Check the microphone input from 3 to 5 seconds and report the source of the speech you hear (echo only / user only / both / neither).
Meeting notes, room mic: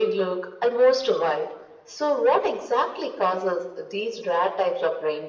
echo only